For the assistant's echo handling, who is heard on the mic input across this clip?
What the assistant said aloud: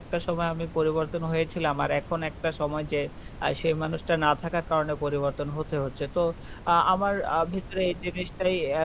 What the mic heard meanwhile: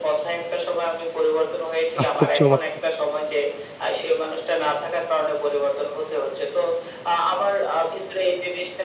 both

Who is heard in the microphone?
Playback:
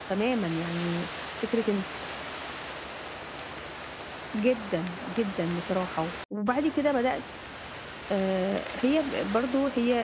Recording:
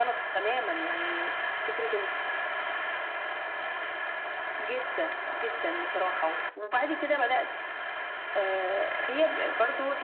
echo only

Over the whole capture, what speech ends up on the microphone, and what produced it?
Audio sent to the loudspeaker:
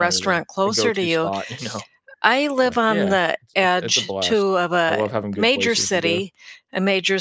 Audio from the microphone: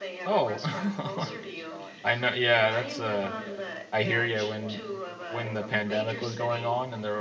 both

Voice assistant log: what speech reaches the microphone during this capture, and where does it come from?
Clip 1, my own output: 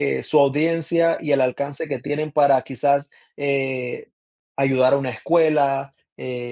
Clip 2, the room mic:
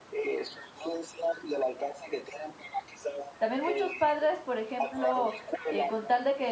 both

